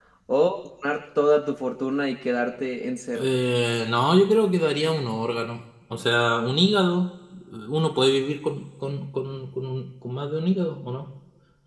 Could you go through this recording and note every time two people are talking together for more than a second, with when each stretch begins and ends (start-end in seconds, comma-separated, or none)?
none